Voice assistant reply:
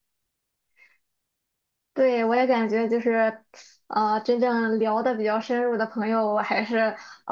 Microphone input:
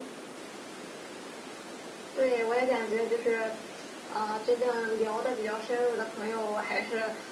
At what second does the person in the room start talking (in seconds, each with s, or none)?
none